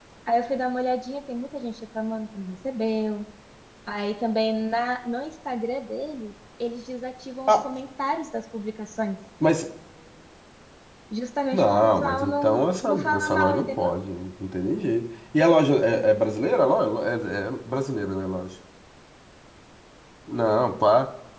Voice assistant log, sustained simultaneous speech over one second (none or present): present